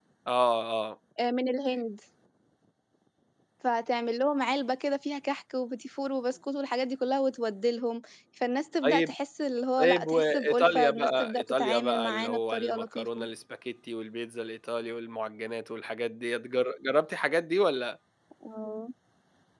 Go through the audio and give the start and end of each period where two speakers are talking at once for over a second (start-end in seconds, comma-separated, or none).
9.8-13.2